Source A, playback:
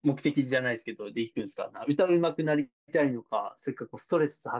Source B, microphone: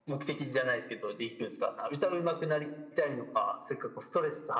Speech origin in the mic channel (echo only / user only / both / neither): echo only